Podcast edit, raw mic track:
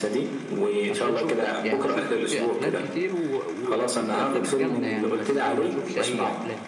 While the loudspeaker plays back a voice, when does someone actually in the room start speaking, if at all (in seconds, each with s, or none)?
0.9 s